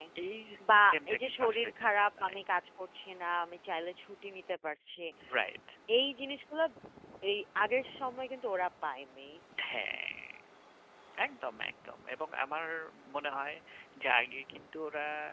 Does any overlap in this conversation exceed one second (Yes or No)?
Yes